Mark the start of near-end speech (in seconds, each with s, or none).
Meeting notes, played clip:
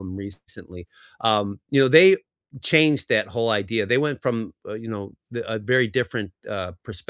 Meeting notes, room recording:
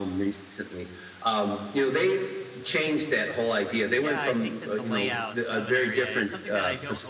3.9 s